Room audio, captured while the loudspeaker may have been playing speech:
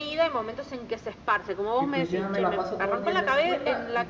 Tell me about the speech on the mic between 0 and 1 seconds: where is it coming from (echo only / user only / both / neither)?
echo only